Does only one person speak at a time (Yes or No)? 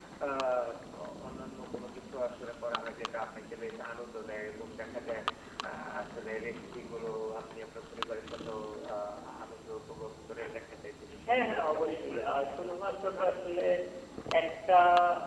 No